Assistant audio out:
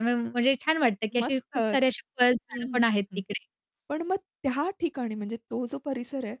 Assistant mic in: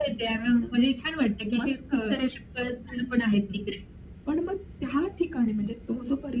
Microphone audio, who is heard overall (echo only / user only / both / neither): echo only